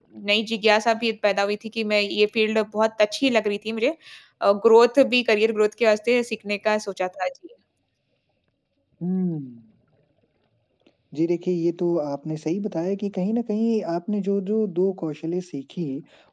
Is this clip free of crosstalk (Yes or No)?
Yes